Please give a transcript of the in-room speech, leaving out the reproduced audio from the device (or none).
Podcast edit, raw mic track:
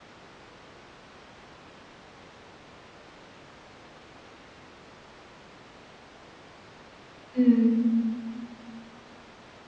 Mhm.